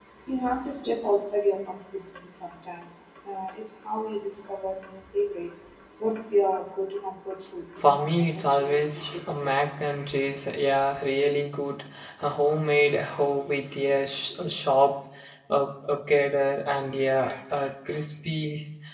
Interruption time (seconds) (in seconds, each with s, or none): 7.8 s